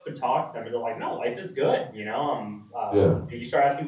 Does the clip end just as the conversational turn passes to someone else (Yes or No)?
No